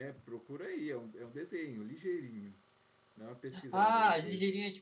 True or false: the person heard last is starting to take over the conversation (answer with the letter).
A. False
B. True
B